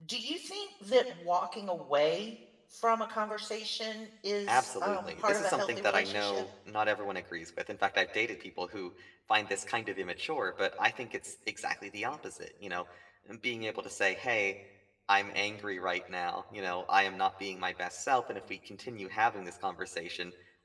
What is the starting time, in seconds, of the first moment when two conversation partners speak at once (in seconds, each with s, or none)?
4.5 s